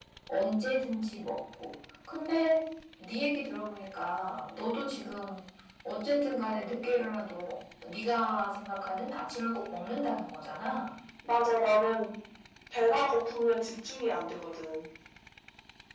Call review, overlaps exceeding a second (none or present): none